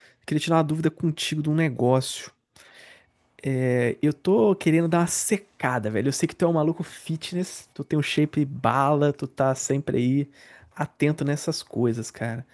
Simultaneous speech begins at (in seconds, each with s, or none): none